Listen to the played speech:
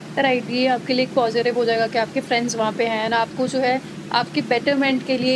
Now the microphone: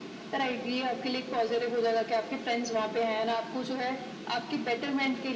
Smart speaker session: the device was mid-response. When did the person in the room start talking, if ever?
none

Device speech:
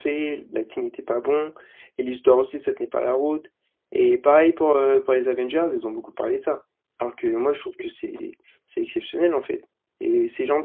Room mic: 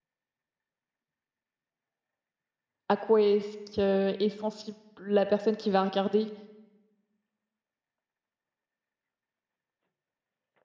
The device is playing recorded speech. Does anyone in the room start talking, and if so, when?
2.9 s

